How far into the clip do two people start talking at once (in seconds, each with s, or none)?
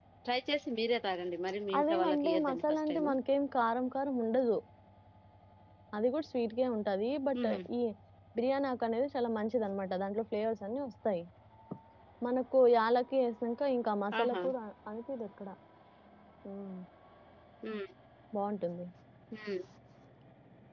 1.8 s